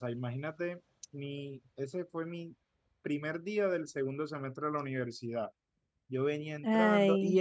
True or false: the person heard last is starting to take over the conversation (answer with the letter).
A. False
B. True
A